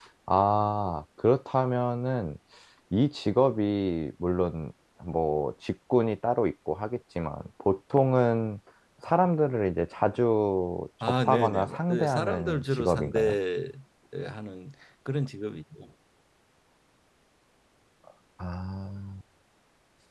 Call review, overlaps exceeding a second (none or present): present